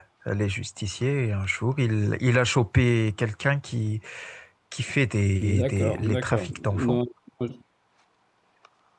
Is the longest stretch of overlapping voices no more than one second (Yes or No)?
No